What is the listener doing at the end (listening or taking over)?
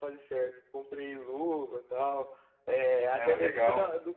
listening